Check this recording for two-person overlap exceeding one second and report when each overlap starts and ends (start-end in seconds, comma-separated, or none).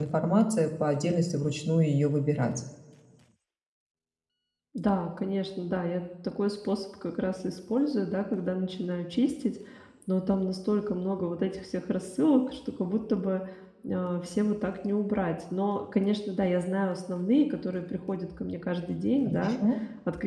none